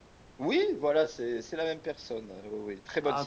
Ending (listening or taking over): taking over